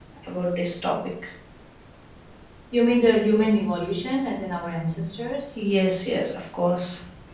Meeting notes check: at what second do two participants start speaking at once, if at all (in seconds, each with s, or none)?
none